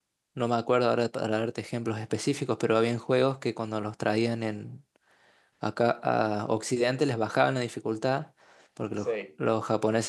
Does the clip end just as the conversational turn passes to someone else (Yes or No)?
No